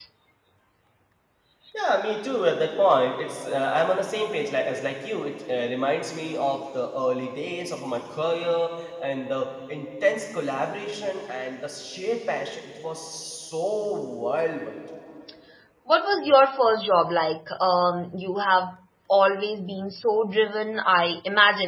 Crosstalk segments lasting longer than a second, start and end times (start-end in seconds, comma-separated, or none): none